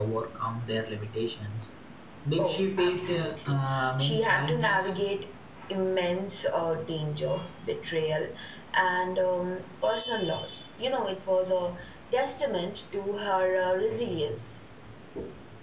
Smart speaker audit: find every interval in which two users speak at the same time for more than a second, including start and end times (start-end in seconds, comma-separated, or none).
2.4-4.9